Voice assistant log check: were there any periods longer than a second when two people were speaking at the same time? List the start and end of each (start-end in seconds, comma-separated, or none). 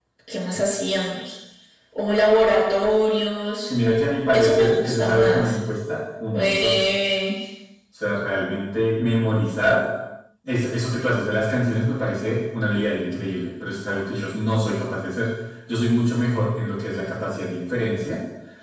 4.3-5.6